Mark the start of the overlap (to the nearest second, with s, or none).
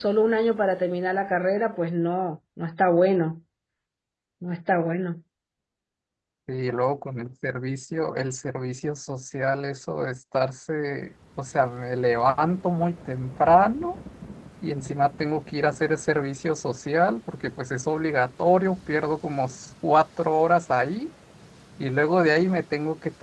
none